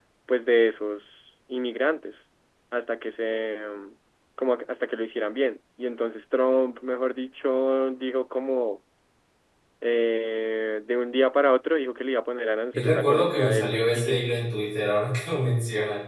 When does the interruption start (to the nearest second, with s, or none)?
13 s